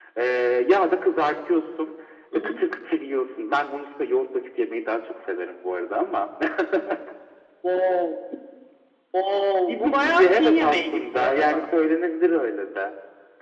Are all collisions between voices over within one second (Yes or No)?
No